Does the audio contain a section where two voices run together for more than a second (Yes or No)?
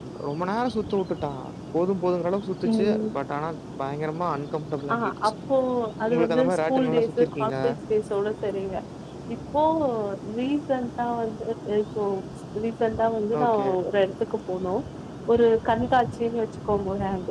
Yes